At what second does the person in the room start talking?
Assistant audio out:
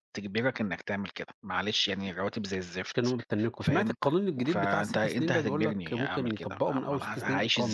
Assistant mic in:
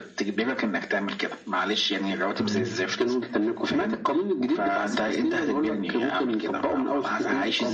2.4 s

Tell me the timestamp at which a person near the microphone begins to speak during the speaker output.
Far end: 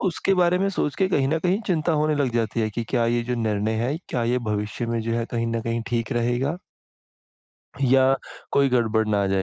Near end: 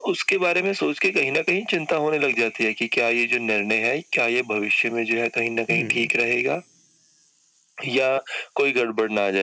5.7 s

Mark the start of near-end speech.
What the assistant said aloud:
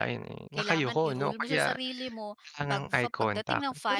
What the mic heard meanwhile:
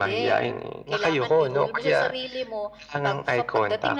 none

